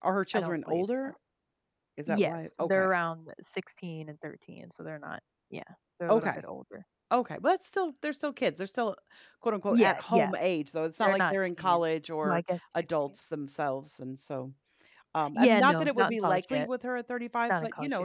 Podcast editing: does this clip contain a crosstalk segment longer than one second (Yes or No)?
Yes